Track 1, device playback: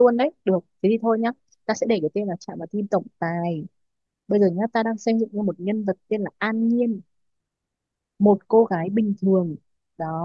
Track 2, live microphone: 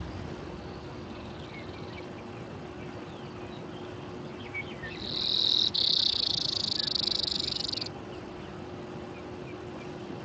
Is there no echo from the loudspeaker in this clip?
Yes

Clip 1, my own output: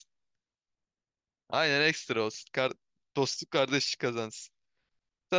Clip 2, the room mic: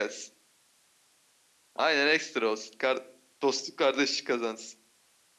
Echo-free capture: No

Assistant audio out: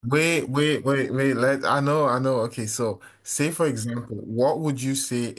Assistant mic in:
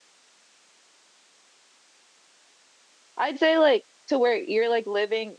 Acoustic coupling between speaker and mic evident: No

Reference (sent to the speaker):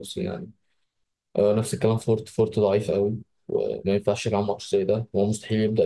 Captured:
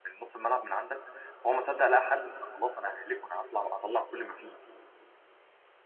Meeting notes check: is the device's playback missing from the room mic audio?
Yes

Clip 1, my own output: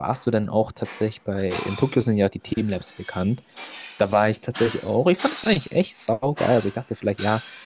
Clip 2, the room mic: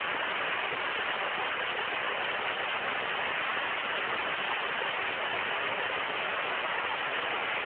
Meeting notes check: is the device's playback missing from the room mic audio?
Yes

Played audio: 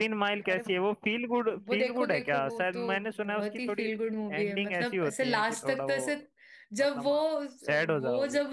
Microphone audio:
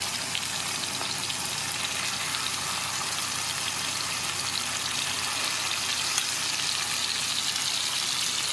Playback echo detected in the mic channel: No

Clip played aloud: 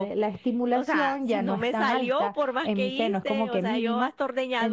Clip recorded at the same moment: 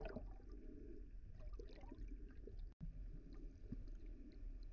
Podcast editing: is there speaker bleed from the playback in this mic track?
No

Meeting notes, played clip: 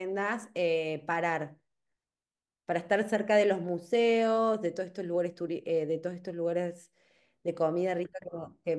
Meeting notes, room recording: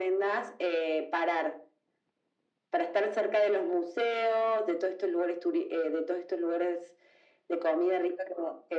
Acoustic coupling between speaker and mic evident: Yes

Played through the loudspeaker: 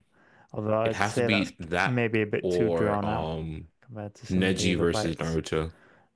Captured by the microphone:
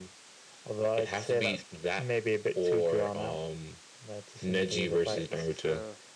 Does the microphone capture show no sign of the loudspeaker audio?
No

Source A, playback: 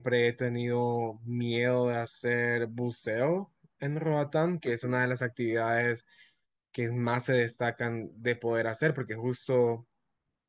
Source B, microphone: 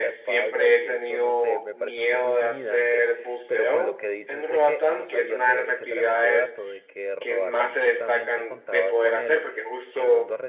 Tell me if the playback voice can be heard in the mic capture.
Yes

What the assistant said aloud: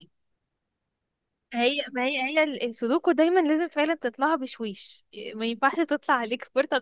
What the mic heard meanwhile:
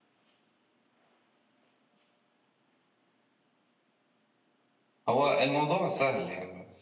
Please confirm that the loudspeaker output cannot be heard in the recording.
Yes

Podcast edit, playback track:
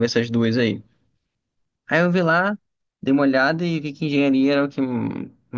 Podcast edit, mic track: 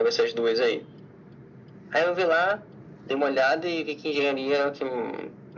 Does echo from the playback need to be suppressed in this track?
Yes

